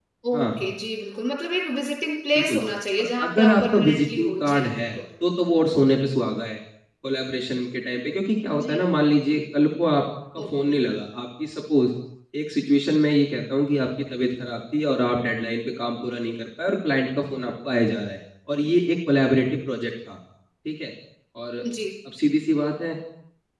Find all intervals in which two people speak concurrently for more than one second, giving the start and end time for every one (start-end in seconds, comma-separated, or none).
3.0-5.0